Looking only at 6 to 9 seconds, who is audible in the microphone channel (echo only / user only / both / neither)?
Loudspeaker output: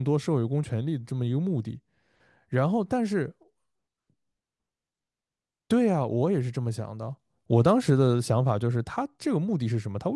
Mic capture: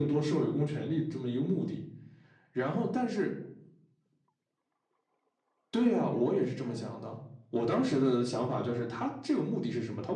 both